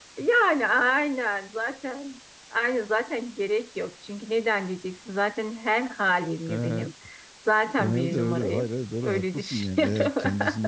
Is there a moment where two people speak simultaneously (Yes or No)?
Yes